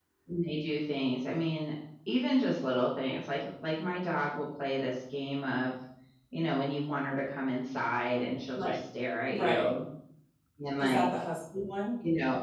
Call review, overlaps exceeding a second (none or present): none